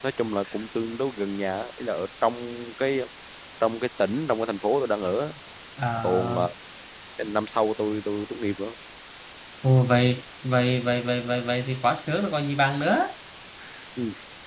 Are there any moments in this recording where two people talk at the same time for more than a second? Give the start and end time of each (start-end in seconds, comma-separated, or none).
none